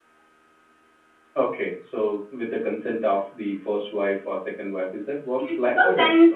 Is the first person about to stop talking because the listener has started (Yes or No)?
Yes